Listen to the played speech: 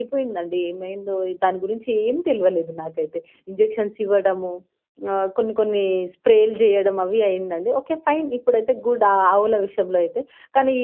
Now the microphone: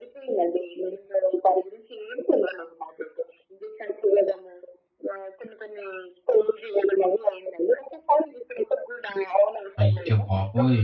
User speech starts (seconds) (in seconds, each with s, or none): 9.8 s